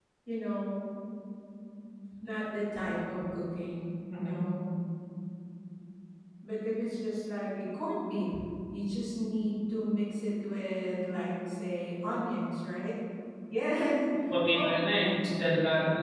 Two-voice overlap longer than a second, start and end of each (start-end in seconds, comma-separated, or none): none